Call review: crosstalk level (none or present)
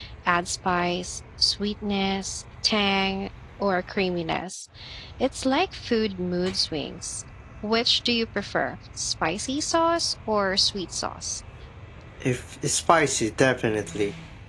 none